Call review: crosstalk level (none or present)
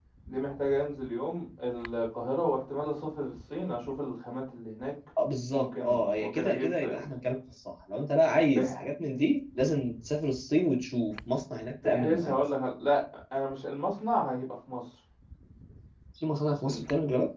present